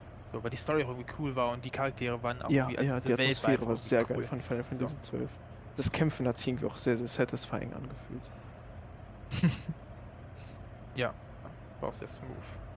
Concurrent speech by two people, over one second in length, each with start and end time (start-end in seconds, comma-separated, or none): 2.5-4.3